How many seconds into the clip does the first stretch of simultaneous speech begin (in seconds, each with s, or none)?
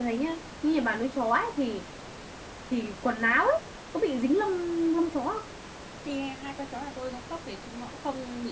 none